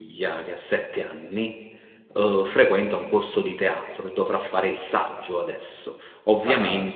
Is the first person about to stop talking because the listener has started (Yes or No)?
No